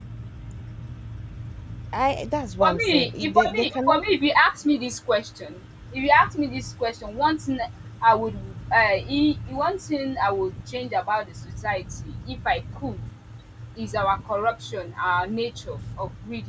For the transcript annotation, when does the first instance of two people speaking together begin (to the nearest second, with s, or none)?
3 s